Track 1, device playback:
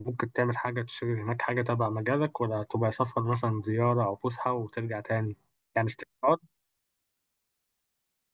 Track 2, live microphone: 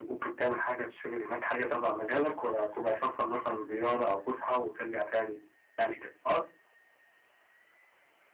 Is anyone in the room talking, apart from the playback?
No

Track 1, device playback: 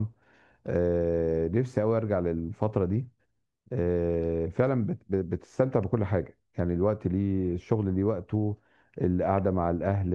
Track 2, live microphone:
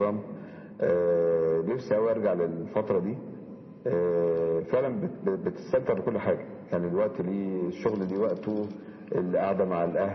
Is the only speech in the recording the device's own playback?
Yes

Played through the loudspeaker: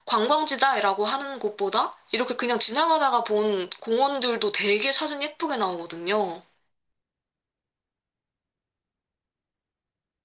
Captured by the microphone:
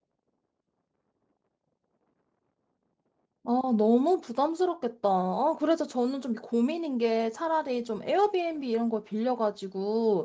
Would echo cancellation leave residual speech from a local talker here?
Yes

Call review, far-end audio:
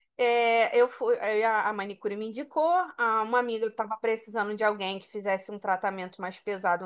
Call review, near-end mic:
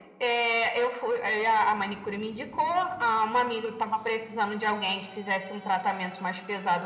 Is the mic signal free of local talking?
Yes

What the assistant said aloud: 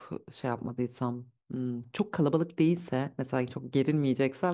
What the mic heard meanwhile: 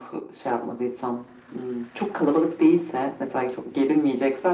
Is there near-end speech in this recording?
No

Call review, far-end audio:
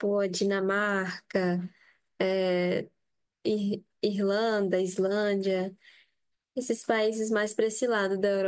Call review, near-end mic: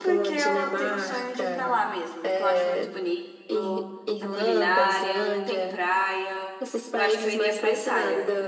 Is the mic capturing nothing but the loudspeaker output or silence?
No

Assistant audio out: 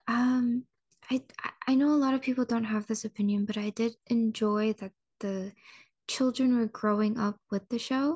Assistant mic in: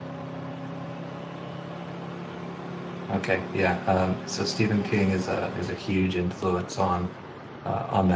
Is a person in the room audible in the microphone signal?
Yes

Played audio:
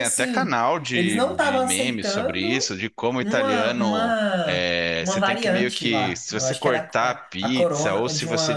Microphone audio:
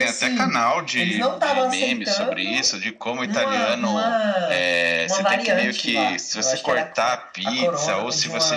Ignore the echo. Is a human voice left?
No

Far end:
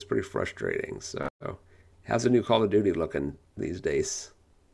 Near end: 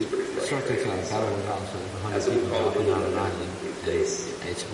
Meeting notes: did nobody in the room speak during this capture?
No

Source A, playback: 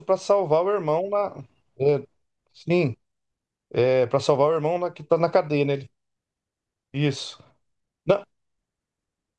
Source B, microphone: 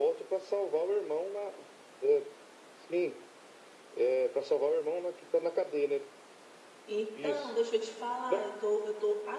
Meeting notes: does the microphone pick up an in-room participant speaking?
Yes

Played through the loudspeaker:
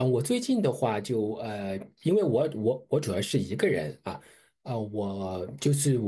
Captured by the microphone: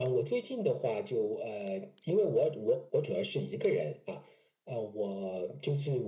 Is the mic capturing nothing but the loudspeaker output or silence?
Yes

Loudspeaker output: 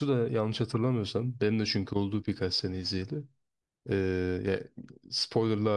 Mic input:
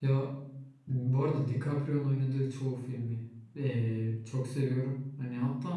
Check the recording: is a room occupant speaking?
Yes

